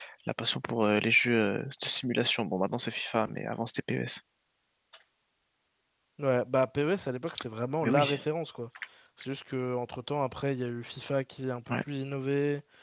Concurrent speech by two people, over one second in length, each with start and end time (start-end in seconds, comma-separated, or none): none